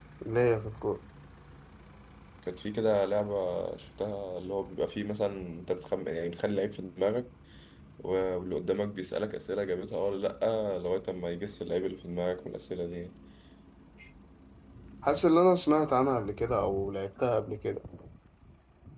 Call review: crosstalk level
none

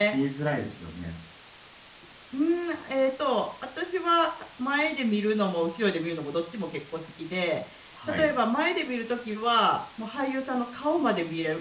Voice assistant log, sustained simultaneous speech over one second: none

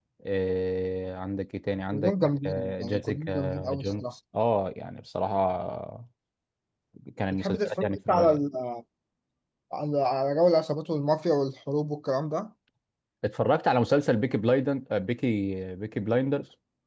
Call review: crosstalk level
present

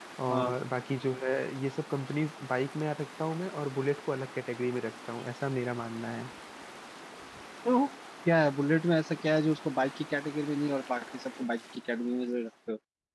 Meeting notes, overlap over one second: none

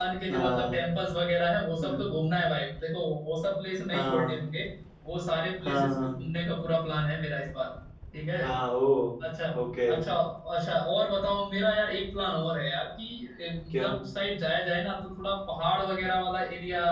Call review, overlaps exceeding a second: none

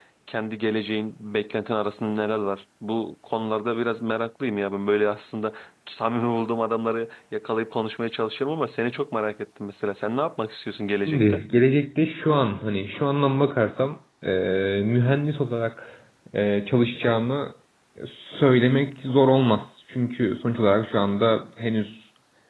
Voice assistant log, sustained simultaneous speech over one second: none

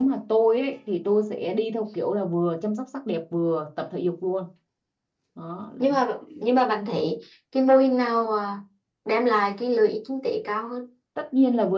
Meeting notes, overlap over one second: none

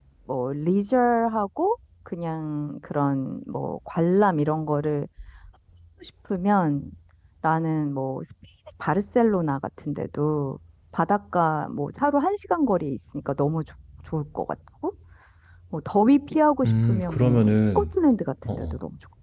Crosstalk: present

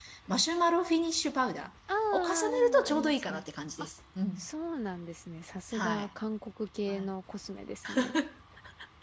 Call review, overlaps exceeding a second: present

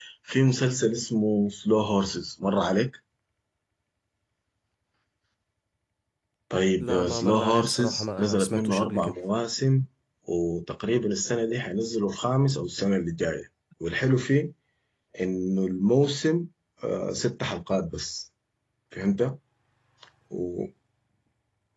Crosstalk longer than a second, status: present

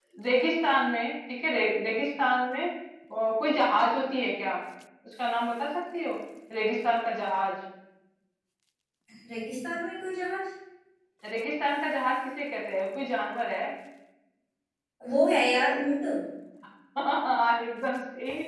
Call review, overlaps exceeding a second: none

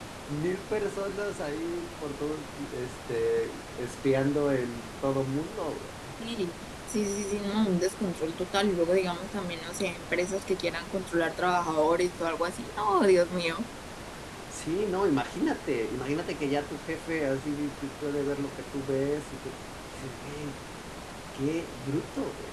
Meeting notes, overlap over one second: none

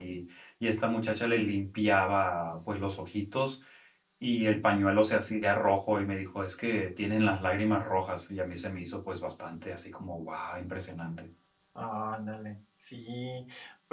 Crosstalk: none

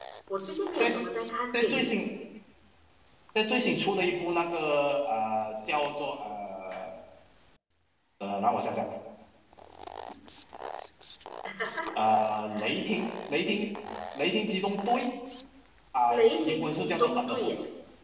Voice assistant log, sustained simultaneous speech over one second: present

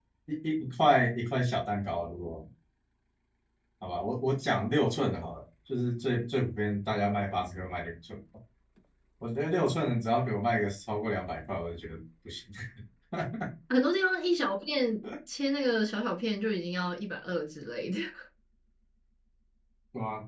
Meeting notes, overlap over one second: none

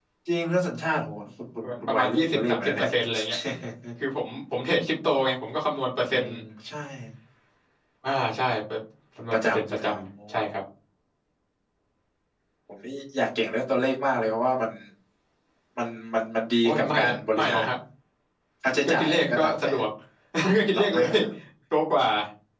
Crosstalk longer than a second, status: present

